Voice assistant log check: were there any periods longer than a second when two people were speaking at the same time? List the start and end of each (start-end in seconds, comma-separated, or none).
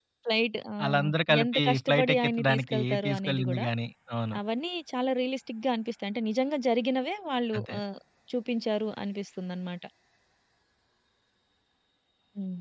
1.4-3.6